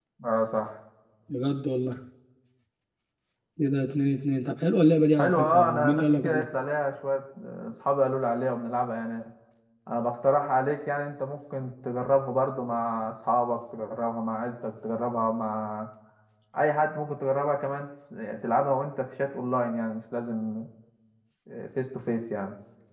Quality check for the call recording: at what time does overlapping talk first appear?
5.2 s

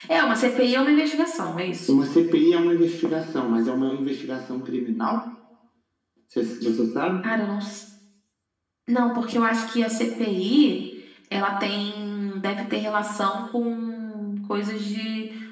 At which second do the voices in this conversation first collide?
none

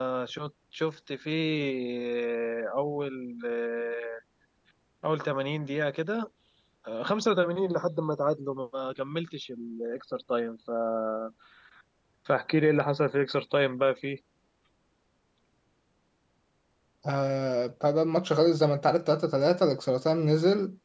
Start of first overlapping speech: none

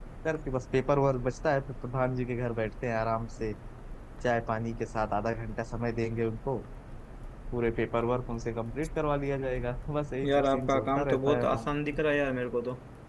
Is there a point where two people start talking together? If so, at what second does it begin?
10.2 s

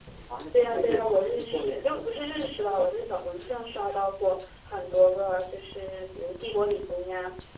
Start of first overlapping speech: 0.6 s

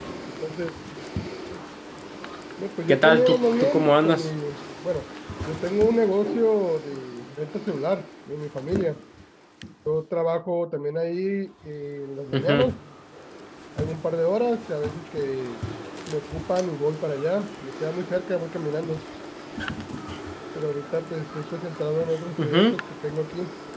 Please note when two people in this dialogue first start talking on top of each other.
2.9 s

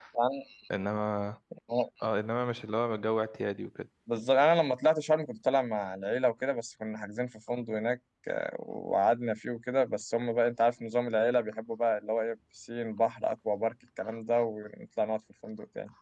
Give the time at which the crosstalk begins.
none

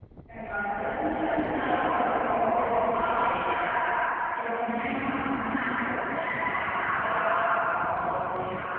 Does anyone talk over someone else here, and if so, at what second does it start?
1.0 s

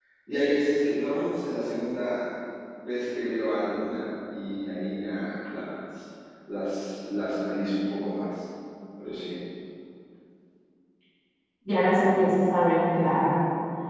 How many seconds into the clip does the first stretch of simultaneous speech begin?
none

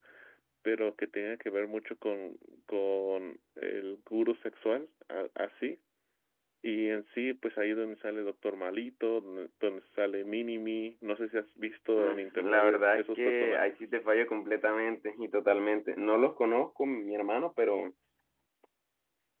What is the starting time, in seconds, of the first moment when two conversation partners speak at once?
12.0 s

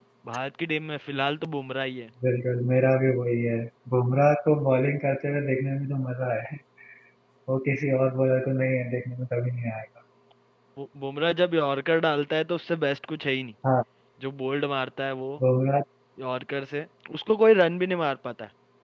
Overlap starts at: none

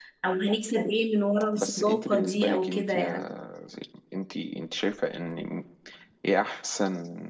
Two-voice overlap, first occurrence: 1.6 s

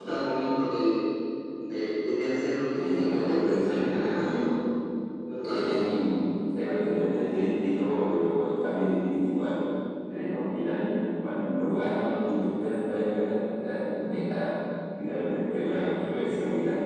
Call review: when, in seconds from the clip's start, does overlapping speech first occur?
2.8 s

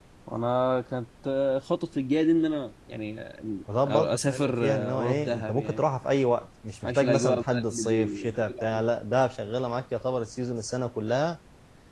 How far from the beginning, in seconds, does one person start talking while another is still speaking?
3.9 s

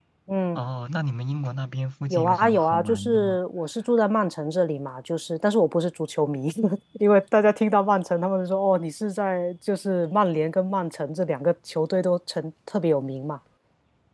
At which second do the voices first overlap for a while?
2.1 s

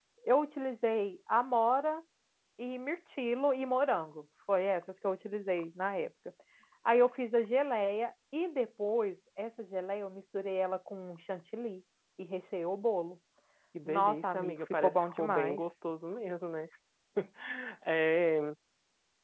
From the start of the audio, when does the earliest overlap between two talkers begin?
13.8 s

